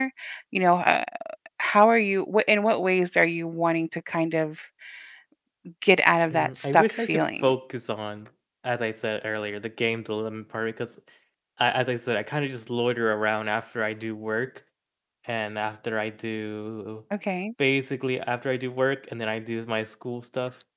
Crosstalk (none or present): present